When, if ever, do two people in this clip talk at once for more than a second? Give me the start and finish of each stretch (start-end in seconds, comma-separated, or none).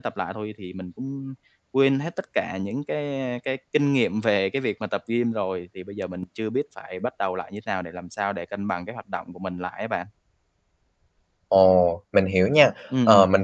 none